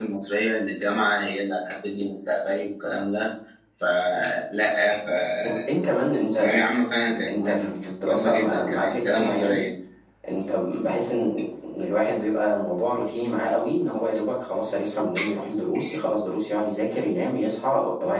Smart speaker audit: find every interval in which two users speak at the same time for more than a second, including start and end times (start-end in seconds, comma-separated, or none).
7.3-9.6